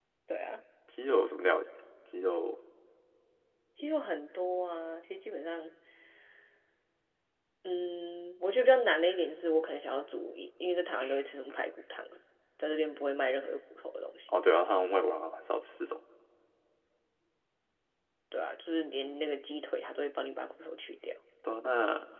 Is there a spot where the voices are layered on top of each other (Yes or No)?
No